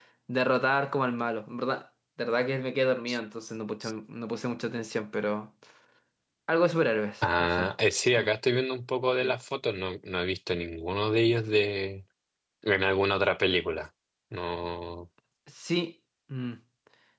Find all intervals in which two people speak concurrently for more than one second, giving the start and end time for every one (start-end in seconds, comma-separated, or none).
none